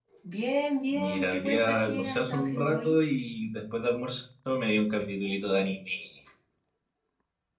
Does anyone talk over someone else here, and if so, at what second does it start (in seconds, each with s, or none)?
1.0 s